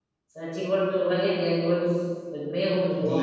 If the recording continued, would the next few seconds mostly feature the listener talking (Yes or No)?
Yes